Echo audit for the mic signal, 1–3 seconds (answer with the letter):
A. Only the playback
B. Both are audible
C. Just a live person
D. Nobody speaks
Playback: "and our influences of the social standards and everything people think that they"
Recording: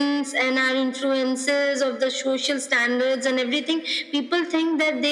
A